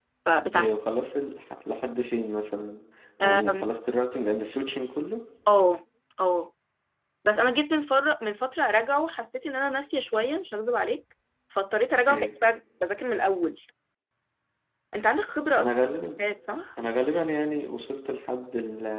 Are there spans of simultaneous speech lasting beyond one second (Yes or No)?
No